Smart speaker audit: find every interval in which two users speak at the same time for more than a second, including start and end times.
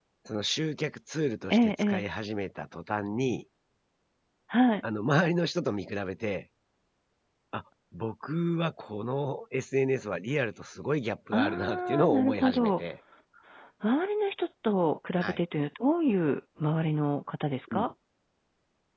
11.3-12.8

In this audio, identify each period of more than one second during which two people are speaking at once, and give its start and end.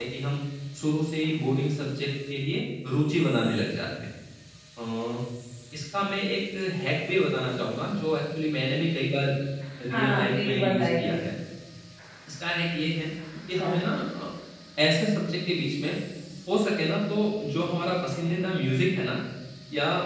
9.9-11.1

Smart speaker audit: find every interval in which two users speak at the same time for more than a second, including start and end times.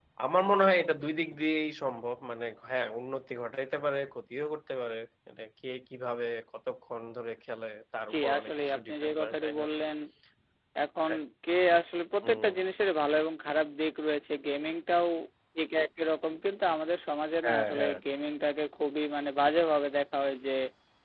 8.1-9.6

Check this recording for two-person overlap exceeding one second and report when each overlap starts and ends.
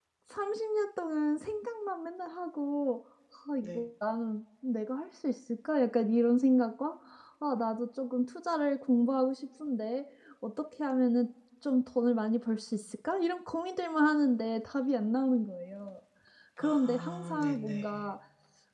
16.6-18.0

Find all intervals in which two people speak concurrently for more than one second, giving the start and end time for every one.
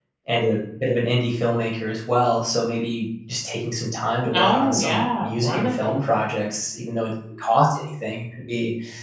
4.3-6.0

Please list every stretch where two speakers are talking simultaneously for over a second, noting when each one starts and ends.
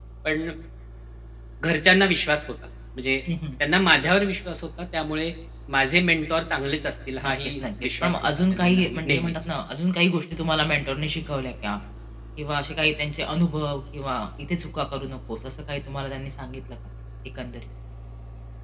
7.2-9.3

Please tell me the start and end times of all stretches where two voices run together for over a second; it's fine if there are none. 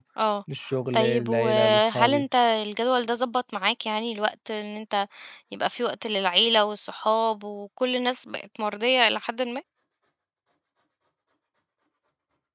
0.9-2.2

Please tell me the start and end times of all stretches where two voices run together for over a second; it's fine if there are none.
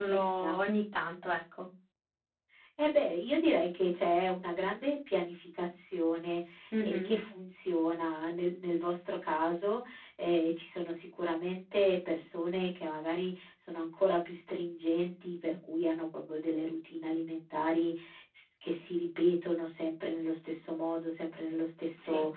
none

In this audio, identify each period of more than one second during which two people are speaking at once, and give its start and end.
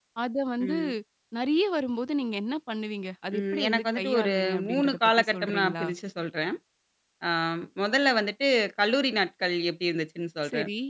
3.4-5.8

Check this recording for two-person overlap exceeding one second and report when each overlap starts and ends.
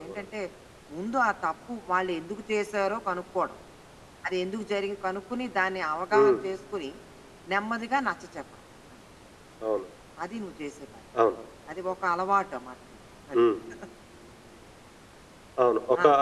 none

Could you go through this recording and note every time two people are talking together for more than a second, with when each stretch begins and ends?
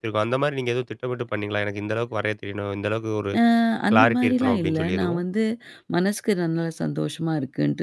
3.9-5.2

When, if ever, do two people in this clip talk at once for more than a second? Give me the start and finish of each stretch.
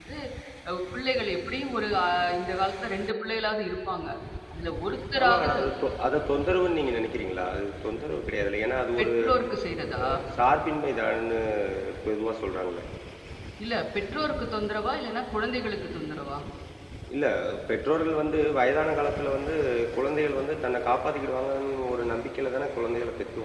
none

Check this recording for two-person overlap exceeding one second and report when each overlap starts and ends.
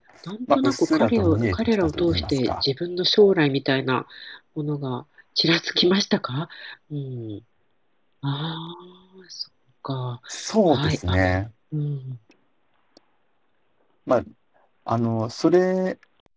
0.5-2.6

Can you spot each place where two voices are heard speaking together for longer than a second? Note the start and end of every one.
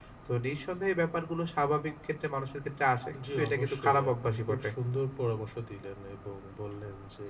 3.3-4.7

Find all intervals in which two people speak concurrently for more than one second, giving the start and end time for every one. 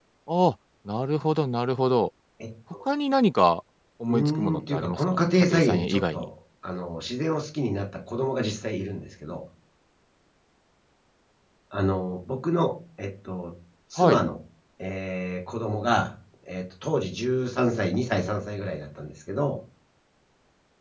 4.1-6.2

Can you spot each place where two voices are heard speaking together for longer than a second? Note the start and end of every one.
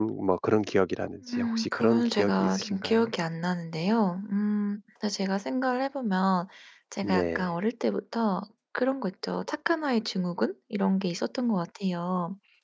1.4-3.1

